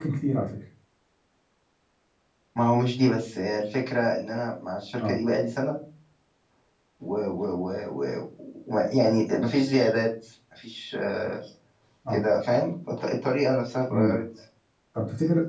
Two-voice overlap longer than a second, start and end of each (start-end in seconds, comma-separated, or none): none